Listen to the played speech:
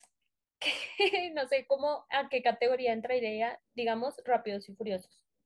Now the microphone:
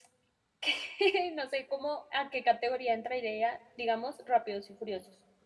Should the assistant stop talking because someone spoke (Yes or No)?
No